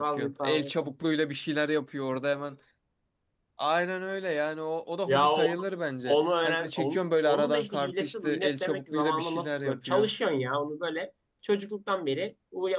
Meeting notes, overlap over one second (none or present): present